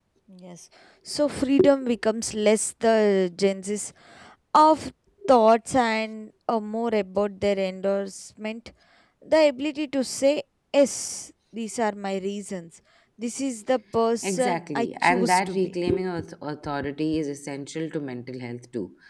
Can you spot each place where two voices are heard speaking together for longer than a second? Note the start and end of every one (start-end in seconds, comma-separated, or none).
14.2-15.7